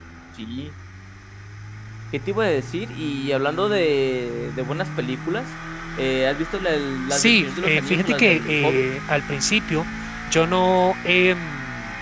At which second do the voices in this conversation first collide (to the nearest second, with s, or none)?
7 s